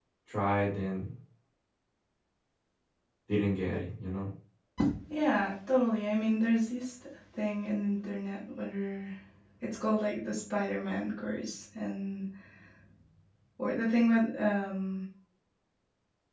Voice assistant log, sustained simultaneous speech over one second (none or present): none